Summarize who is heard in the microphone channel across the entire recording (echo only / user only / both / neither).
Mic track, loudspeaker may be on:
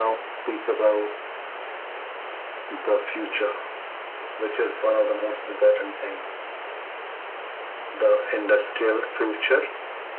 echo only